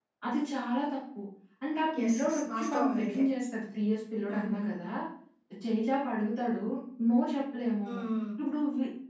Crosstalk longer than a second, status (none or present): present